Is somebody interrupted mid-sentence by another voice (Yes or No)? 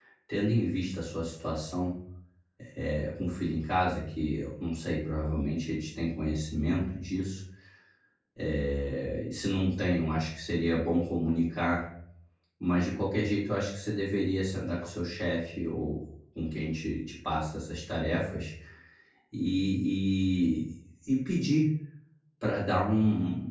No